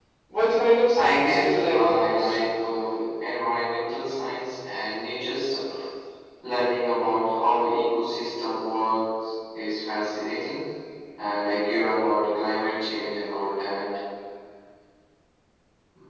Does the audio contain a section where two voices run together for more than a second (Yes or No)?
Yes